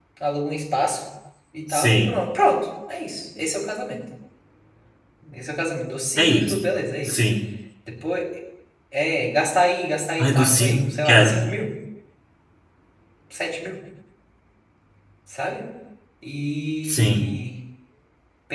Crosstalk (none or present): present